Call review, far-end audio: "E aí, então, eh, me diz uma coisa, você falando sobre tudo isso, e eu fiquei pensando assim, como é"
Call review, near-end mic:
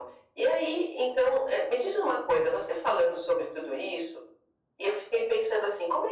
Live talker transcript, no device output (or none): none